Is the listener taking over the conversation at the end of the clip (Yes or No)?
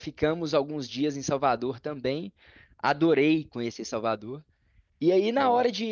No